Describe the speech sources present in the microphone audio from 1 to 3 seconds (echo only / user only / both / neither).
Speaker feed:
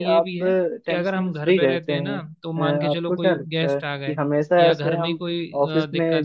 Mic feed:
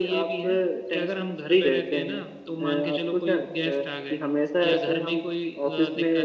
echo only